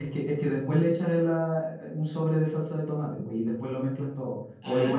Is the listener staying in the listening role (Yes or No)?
No